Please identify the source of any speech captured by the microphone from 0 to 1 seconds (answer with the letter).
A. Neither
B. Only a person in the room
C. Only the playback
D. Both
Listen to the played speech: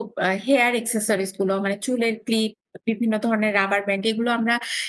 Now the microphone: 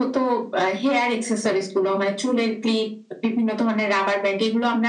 C